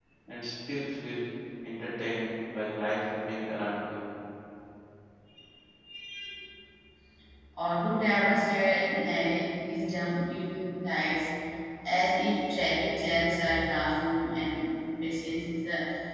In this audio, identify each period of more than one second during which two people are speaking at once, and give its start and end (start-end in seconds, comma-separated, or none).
none